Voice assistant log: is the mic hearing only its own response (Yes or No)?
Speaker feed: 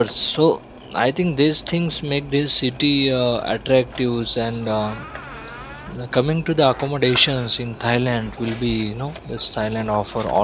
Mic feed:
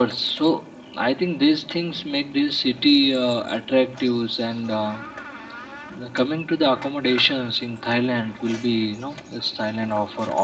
Yes